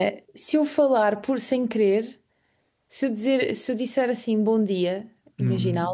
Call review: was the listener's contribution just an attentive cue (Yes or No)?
Yes